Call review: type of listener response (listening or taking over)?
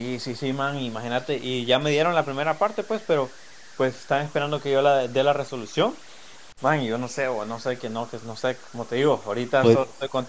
listening